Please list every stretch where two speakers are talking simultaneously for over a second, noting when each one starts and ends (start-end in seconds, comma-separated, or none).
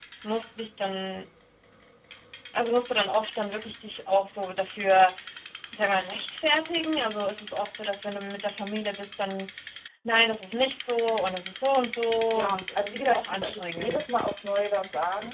12.3-14.1